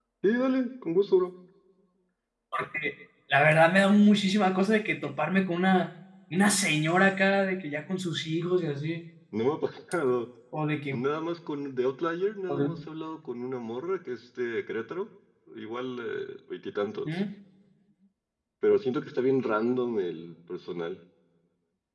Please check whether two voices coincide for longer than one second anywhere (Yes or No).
No